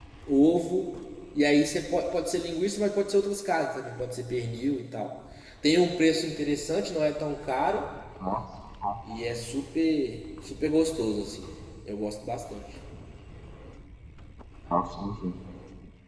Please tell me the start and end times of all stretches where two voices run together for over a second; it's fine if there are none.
none

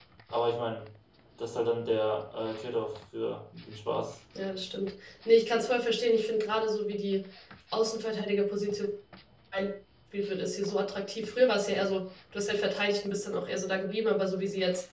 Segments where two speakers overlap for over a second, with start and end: none

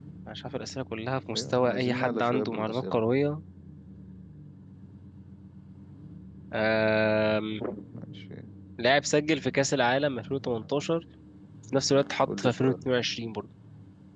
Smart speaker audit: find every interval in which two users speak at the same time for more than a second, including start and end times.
1.4-3.0

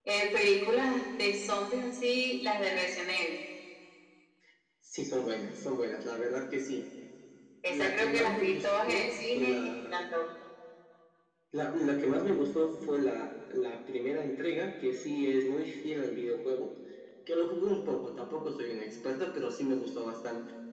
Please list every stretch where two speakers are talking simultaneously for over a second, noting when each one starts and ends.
7.7-9.9

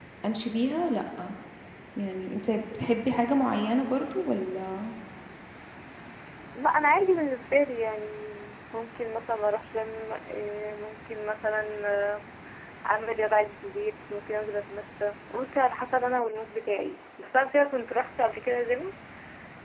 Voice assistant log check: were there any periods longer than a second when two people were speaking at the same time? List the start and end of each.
none

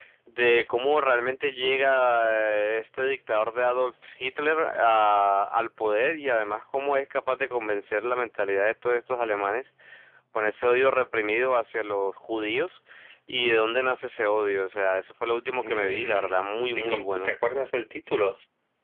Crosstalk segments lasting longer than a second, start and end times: 15.6-17.3

